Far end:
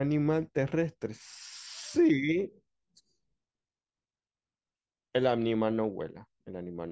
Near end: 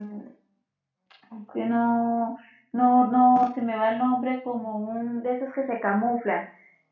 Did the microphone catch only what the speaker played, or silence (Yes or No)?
No